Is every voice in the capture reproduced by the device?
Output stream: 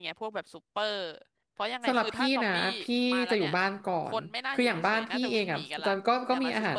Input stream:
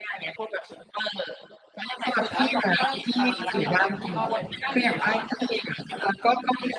No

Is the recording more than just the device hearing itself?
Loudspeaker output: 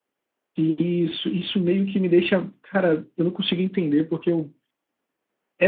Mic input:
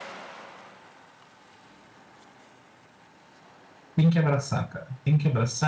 Yes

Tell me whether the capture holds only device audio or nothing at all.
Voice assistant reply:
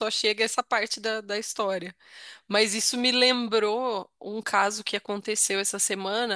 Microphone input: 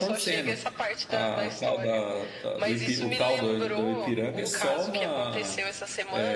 No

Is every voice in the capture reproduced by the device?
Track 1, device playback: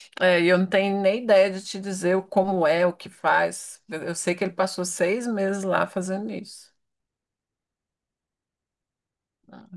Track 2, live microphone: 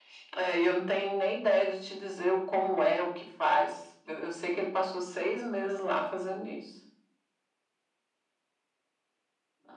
Yes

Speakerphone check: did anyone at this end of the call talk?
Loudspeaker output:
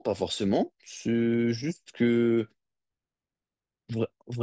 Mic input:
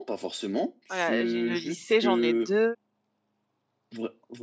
Yes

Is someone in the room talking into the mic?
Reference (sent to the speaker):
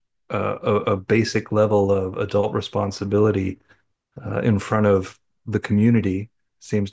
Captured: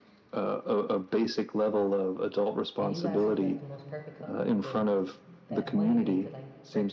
Yes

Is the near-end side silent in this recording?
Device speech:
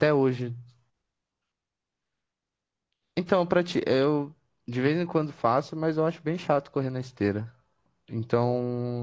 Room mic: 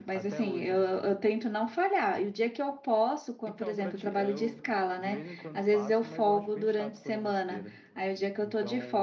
No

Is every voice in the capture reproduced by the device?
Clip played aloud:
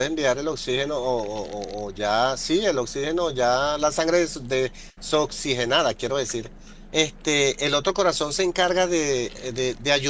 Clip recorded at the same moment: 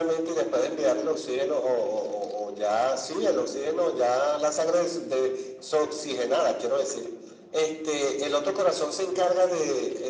Yes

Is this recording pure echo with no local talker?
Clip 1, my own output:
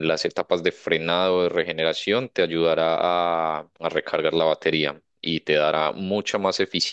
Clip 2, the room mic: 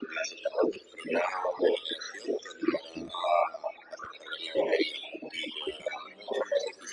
Yes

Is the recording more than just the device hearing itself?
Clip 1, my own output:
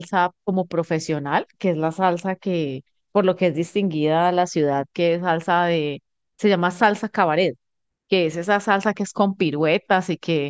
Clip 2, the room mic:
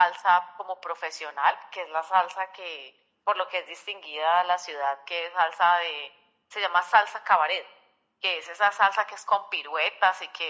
No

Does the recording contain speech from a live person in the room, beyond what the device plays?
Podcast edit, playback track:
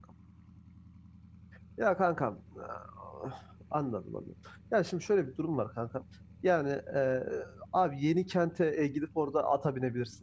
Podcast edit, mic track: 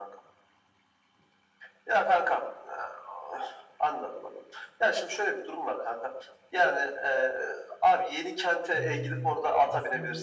Yes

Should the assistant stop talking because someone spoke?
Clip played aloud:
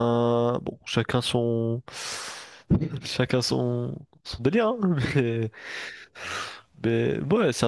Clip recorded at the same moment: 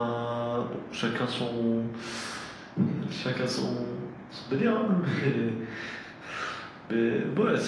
No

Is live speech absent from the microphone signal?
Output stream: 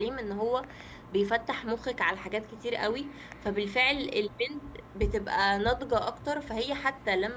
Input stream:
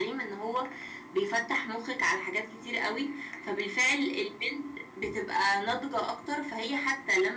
Yes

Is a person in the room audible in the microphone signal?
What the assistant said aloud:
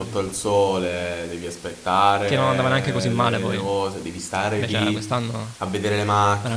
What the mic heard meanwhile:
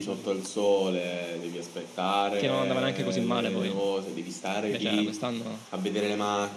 No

